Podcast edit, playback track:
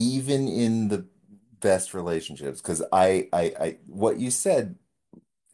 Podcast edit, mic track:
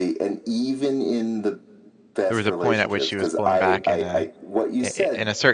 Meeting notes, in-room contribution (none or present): present